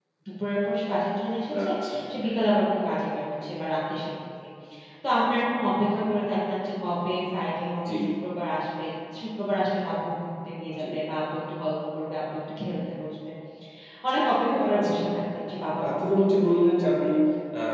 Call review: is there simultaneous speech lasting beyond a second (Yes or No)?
Yes